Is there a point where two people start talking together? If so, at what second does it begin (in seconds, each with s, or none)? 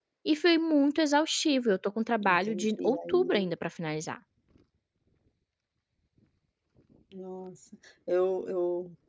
2.2 s